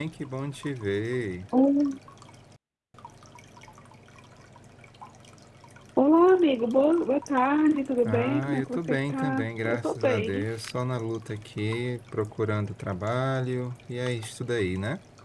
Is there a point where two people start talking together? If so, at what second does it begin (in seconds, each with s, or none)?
8.1 s